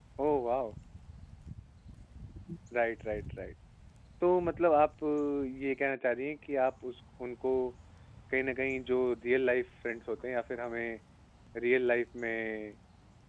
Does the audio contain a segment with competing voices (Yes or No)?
No